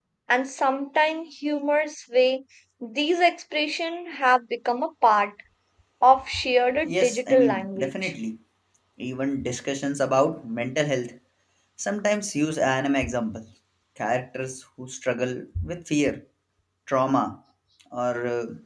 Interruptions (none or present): present